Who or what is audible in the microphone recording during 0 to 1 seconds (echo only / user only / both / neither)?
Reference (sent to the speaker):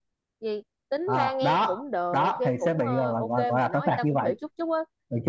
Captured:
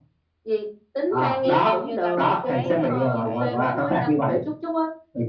echo only